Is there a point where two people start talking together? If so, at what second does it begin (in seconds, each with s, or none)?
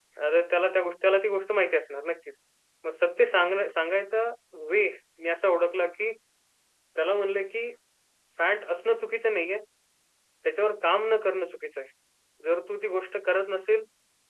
none